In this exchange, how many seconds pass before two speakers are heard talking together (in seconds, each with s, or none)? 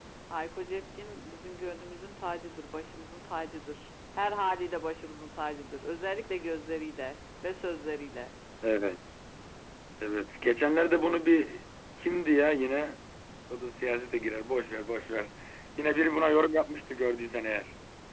none